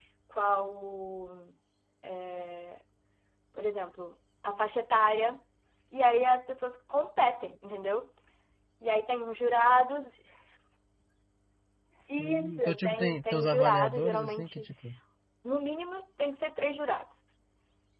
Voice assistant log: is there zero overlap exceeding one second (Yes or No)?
No